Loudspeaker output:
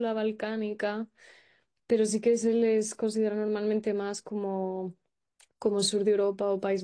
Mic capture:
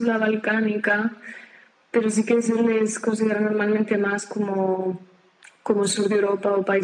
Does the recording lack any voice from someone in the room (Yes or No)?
Yes